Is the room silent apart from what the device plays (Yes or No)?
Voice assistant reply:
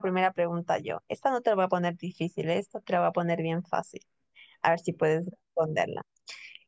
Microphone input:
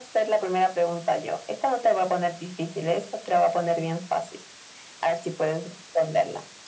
Yes